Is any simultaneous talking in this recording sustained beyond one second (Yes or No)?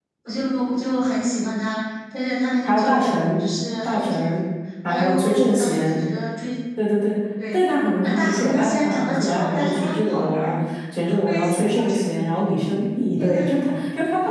Yes